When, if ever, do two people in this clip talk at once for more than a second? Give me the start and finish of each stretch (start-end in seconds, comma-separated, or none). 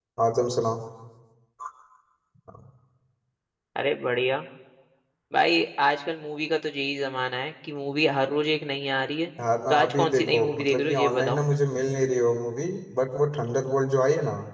9.7-11.4